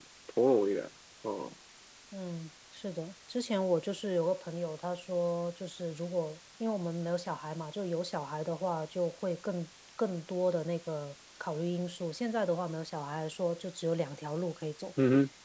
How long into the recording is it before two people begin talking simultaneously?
none

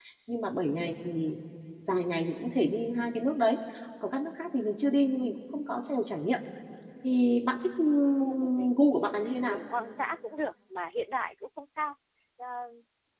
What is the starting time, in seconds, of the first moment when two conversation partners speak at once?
8.2 s

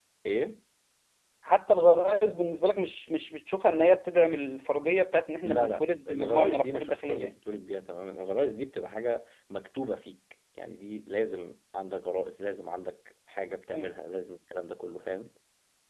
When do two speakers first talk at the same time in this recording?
5.4 s

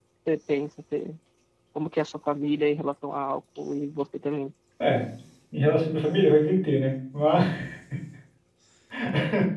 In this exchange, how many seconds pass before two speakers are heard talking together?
none

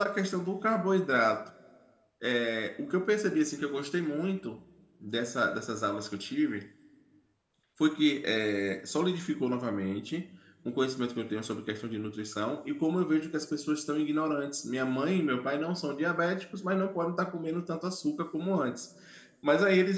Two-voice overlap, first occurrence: none

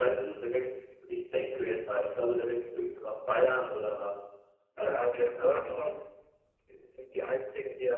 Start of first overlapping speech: 4.8 s

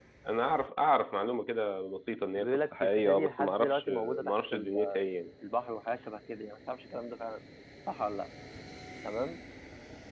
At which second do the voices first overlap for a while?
2.4 s

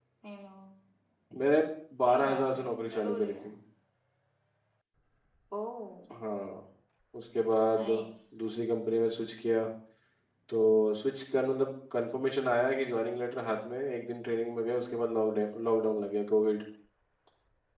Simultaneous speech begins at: 2.1 s

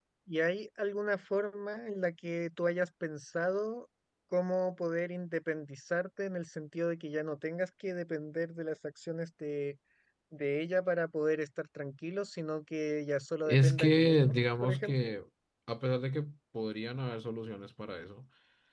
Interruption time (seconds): 13.5 s

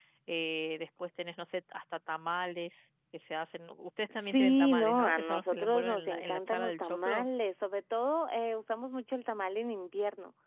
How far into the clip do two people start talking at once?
4.3 s

